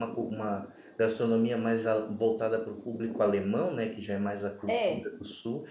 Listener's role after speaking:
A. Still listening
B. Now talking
A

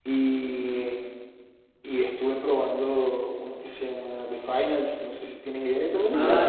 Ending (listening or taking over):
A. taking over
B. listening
A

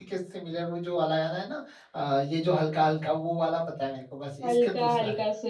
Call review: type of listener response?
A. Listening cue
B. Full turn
B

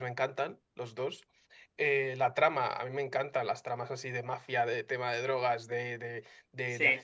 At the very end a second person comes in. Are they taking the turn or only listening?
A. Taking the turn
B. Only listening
B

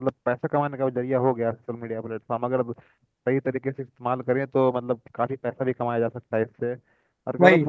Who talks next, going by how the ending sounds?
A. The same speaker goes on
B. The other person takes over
A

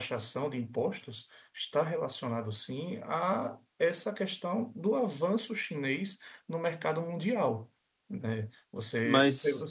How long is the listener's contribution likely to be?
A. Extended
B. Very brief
B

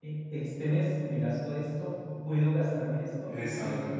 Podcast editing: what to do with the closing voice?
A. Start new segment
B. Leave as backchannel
B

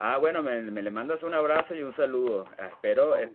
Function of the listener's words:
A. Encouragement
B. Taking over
A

